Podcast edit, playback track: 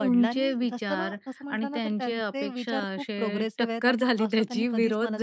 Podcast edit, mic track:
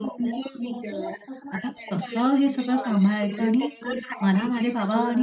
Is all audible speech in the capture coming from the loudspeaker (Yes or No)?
No